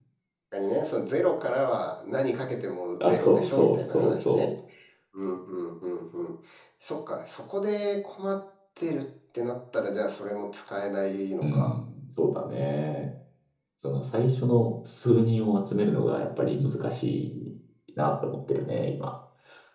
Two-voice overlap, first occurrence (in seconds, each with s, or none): 3.0 s